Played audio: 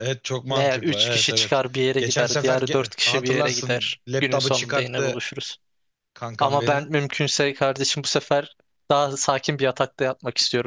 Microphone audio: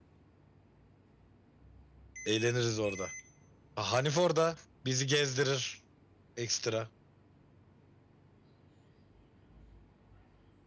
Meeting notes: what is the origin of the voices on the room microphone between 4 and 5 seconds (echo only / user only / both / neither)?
user only